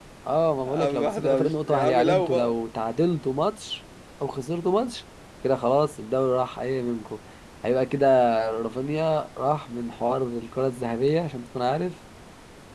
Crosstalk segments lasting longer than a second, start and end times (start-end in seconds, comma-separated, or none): 0.6-2.5